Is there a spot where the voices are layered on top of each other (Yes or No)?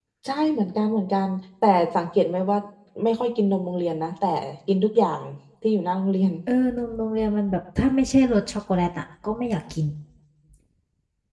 No